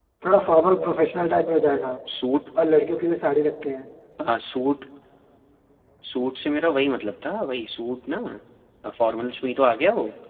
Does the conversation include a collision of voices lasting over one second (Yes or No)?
No